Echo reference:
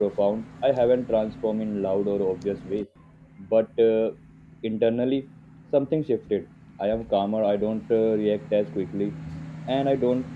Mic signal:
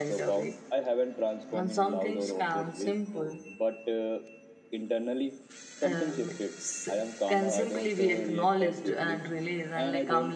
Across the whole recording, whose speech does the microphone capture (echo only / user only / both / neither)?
both